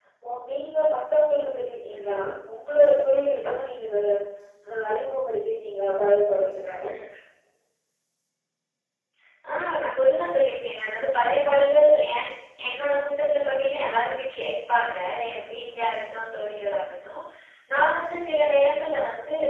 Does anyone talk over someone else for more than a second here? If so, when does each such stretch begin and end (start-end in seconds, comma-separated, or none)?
none